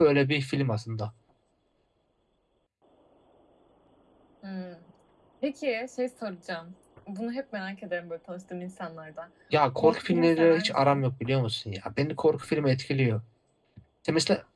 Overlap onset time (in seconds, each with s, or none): 9.7 s